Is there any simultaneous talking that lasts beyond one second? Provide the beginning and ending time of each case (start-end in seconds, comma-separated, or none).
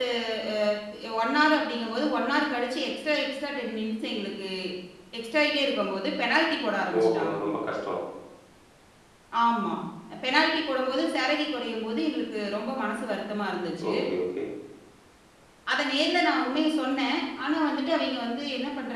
none